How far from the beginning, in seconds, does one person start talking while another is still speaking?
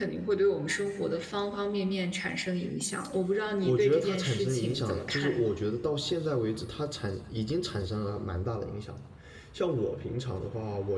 3.6 s

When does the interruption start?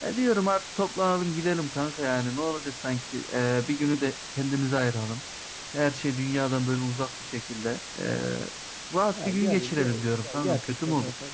9.2 s

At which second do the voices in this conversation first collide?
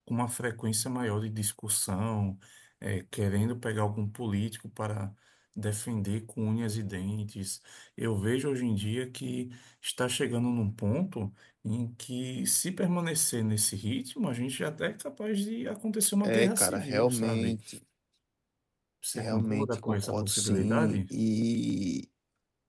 16.2 s

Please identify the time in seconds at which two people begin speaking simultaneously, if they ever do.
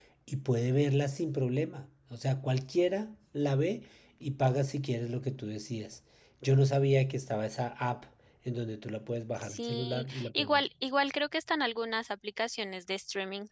9.4 s

